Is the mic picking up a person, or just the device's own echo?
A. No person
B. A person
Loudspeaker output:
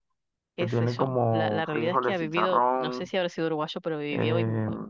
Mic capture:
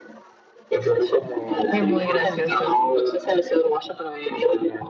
B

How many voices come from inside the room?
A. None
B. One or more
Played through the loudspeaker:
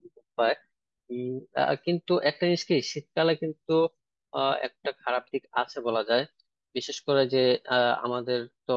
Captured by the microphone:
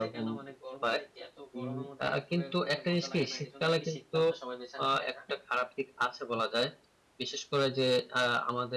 B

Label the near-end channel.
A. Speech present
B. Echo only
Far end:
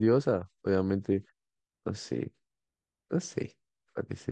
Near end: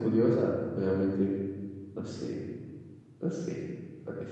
B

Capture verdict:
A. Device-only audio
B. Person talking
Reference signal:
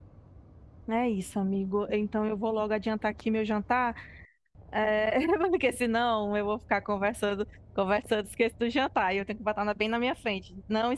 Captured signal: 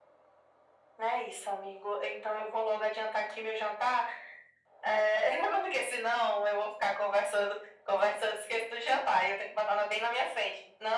A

